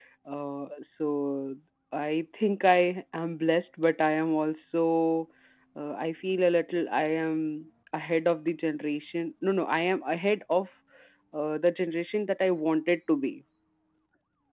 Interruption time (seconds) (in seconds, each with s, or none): none